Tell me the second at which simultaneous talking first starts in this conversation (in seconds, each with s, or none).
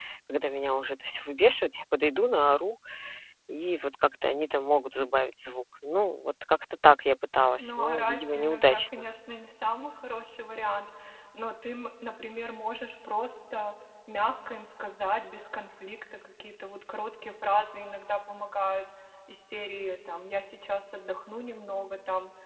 7.6 s